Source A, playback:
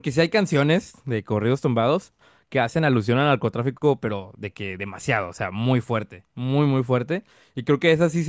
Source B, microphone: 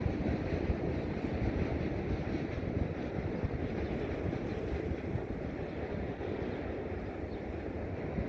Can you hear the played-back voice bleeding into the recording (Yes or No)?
No